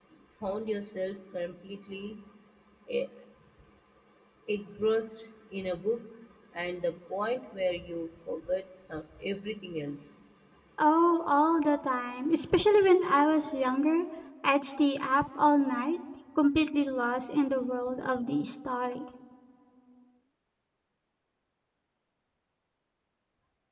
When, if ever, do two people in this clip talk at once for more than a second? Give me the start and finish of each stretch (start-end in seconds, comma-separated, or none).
none